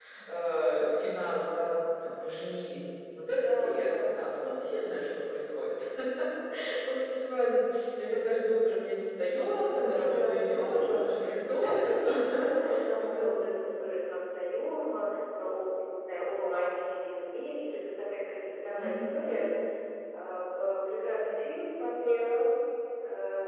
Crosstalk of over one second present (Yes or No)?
Yes